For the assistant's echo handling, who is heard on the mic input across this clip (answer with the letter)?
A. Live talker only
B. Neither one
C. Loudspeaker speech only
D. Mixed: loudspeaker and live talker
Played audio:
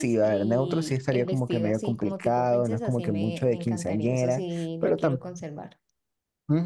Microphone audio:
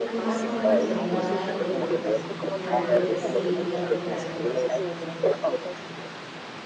D